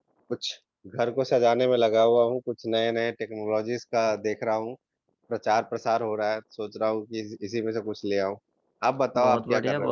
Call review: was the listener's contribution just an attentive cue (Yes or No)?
No